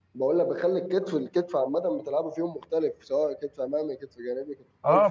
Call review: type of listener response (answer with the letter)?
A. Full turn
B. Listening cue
A